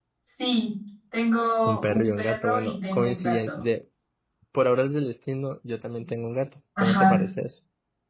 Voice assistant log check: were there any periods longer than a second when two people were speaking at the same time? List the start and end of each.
1.6-3.6

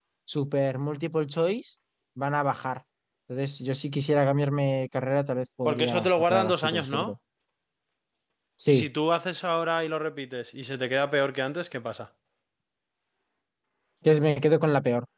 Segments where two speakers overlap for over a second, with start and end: 5.7-7.1

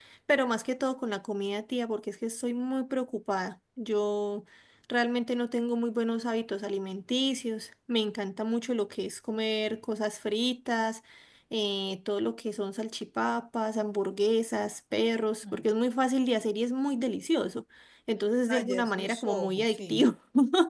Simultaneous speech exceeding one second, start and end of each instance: 18.5-20.1

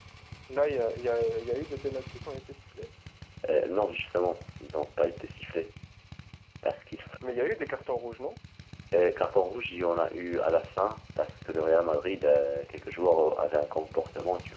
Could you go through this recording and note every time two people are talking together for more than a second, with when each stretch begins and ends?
none

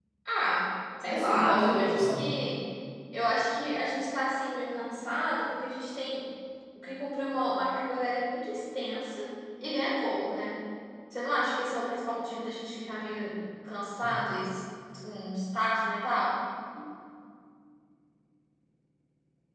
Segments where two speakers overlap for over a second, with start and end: 1.0-2.2

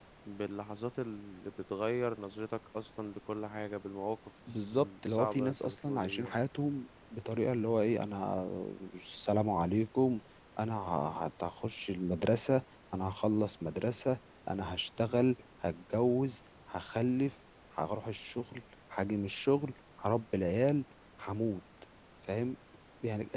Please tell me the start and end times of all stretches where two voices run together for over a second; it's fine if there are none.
4.5-6.4

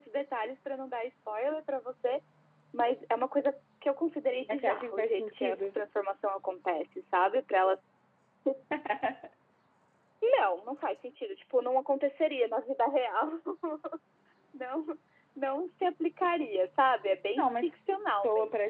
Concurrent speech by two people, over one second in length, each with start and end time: 4.5-5.8

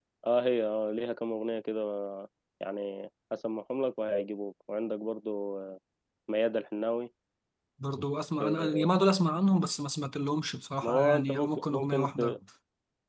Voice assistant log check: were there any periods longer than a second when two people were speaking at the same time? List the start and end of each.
10.8-12.3

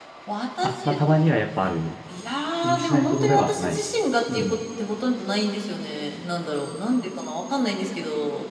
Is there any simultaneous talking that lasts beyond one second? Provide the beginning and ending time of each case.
2.6-3.8

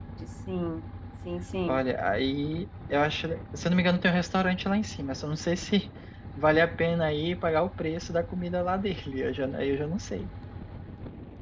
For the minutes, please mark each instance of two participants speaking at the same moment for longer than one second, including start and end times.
none

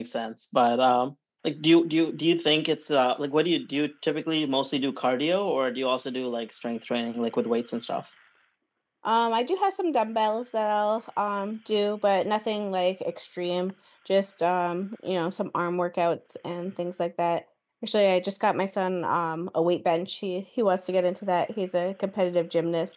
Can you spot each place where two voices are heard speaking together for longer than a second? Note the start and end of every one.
none

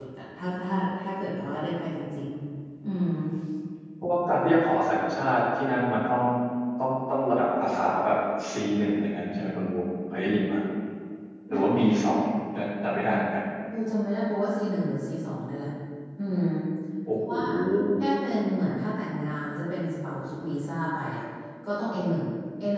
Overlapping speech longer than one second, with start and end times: none

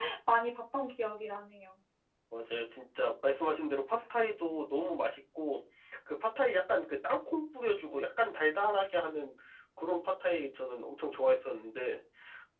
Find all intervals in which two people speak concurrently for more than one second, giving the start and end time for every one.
none

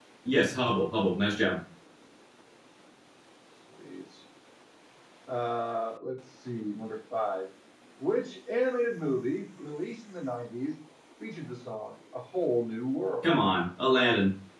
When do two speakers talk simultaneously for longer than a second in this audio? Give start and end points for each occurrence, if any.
none

